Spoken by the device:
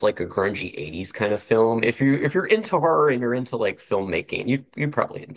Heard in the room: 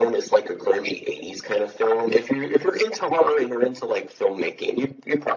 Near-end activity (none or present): none